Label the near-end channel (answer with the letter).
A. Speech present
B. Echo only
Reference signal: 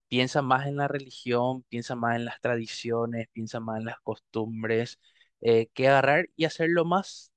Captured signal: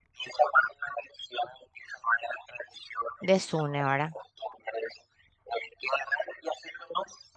A